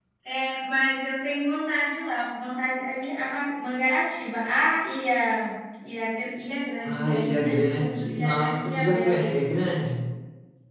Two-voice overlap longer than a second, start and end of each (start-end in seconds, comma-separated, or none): 6.8-9.2